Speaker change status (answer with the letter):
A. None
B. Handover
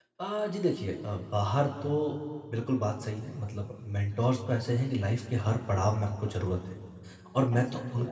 A